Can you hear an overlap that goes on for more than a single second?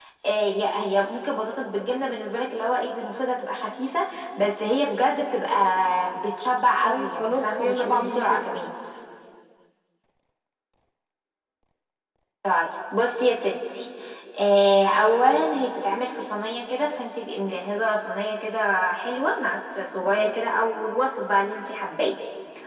Yes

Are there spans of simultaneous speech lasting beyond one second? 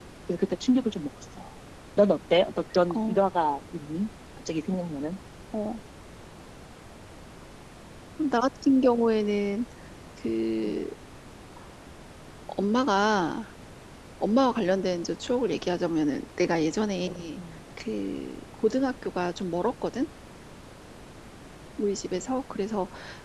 No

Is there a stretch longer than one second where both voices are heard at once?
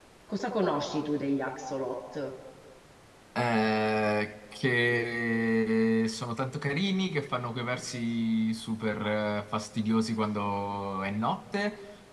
No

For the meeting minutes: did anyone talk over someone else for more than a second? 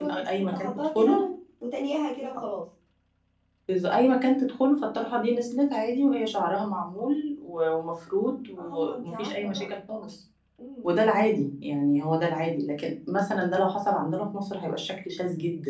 Yes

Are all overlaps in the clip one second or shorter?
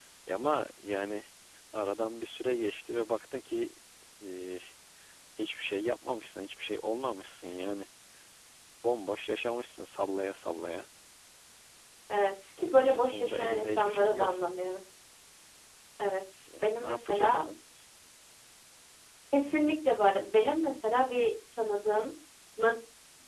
No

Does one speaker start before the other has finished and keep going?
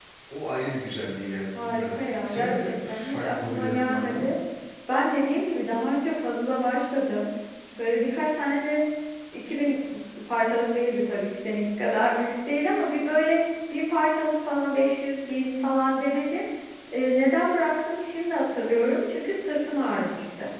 Yes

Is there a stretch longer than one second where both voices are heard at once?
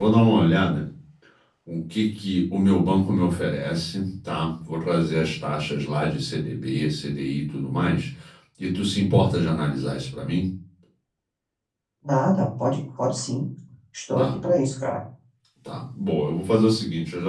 No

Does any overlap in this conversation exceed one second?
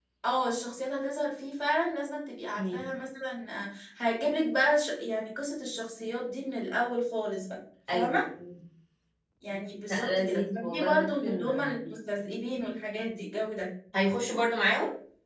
Yes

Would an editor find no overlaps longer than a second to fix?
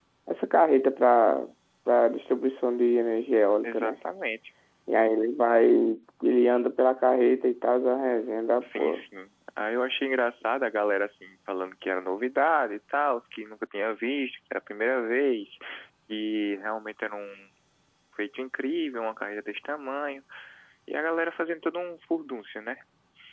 Yes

